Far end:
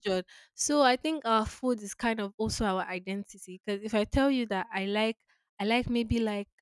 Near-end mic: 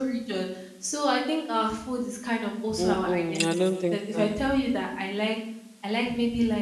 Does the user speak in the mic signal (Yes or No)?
Yes